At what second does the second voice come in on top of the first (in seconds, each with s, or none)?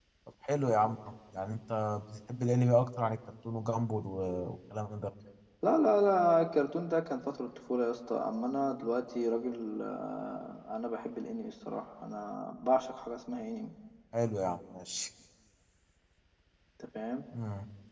none